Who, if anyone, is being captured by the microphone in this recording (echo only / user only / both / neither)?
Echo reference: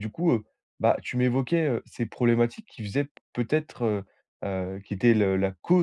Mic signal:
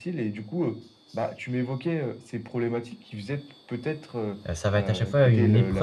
both